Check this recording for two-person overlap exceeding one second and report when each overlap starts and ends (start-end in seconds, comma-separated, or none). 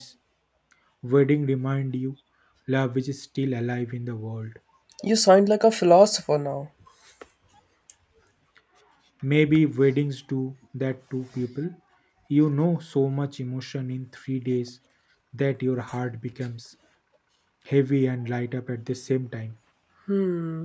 none